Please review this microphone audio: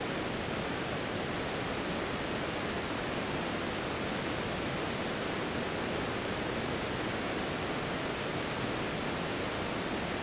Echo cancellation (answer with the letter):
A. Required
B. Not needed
B